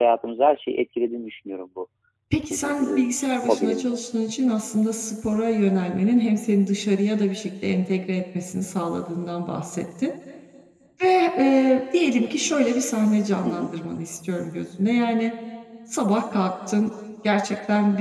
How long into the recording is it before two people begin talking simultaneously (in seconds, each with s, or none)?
2.6 s